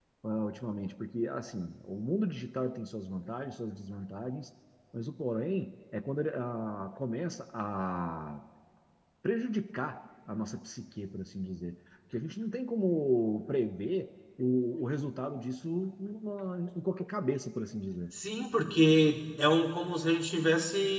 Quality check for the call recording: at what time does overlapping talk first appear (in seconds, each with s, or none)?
none